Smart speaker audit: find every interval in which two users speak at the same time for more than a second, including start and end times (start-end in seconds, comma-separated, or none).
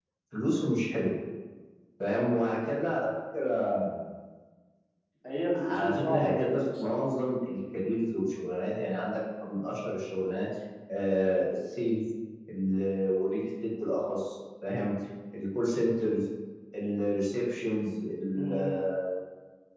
5.6-7.0